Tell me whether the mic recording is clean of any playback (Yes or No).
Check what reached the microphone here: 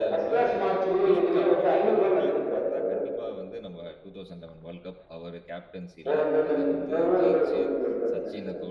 No